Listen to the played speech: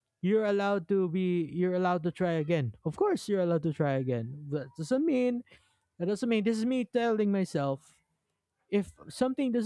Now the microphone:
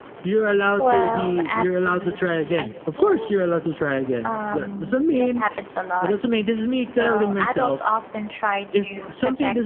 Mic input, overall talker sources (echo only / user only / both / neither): both